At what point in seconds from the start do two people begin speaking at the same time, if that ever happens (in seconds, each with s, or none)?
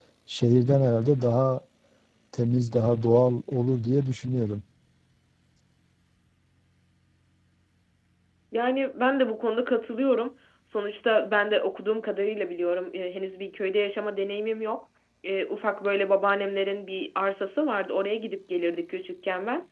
none